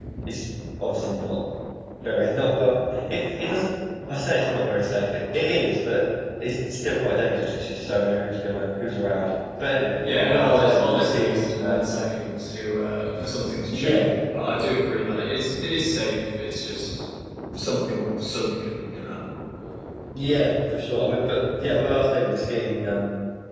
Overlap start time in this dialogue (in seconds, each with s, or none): 10.2 s